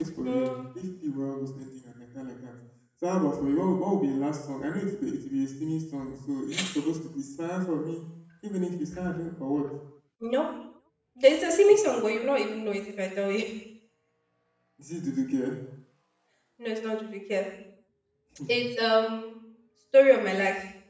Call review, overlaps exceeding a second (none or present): none